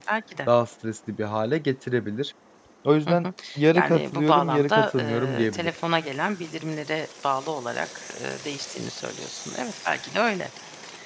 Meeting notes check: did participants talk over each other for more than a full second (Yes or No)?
Yes